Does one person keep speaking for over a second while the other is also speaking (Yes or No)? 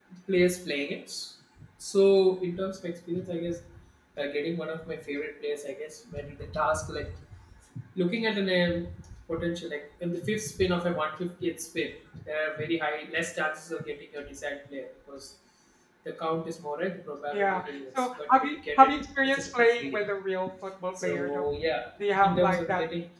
Yes